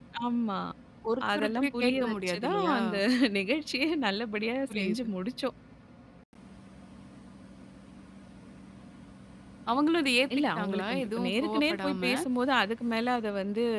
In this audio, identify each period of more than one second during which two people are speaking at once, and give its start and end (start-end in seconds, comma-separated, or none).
1.4-2.8, 10.4-12.0